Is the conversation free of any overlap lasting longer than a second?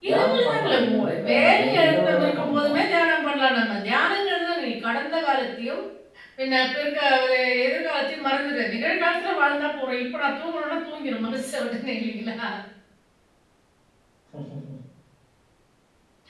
No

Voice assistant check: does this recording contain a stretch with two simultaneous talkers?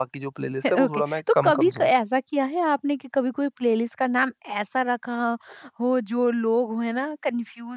Yes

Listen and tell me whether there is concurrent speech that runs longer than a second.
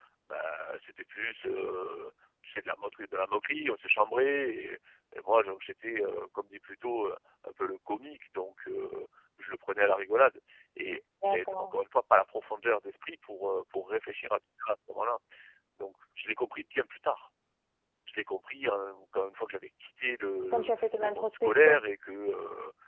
Yes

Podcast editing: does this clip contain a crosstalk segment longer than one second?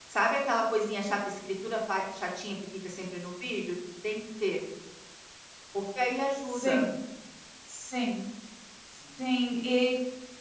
No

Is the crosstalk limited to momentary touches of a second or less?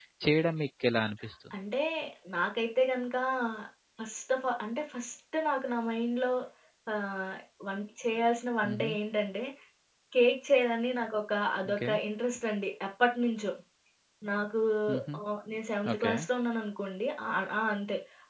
Yes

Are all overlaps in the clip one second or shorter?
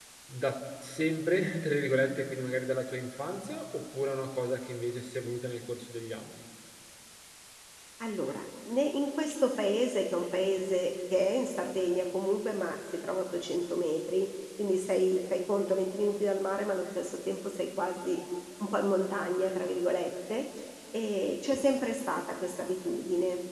Yes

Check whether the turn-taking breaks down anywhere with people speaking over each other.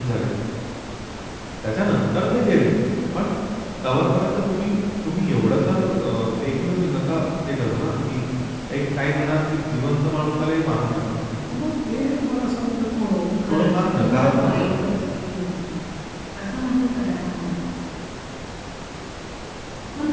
Yes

